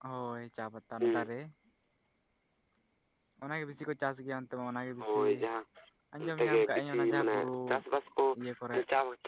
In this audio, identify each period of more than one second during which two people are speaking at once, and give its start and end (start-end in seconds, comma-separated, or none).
6.2-7.5